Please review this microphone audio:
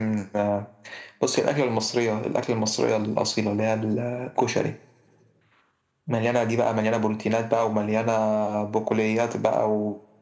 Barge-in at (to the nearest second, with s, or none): none